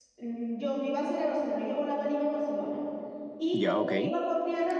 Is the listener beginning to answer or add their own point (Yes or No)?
No